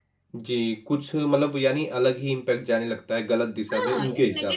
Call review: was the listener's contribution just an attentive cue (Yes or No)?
No